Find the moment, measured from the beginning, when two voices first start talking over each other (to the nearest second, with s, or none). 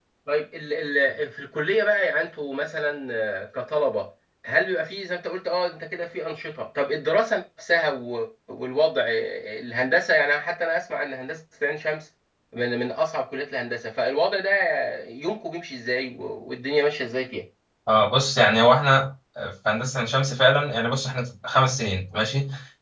none